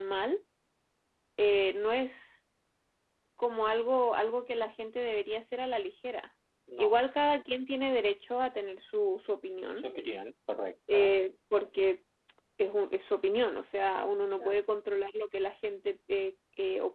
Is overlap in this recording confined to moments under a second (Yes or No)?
Yes